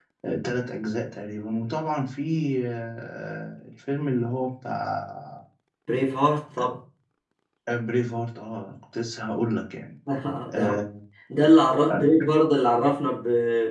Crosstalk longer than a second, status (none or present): none